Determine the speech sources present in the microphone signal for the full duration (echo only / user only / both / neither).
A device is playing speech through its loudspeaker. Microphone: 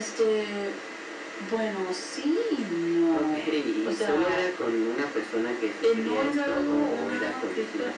echo only